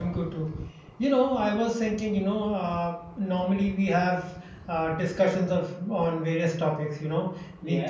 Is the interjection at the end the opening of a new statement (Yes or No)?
No